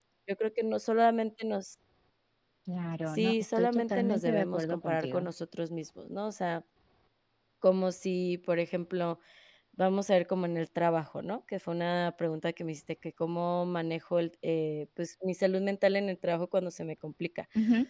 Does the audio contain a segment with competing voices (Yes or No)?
Yes